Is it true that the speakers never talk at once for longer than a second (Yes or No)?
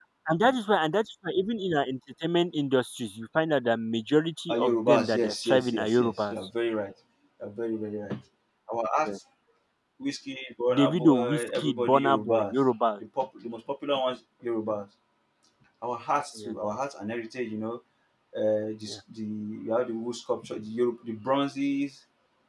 No